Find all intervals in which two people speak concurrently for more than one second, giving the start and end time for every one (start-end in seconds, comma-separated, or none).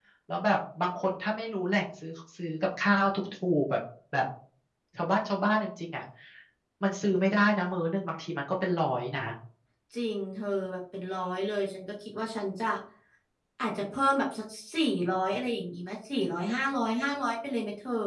none